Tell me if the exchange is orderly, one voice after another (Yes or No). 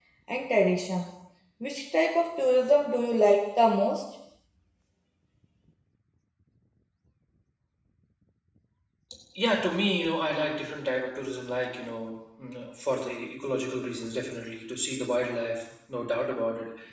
Yes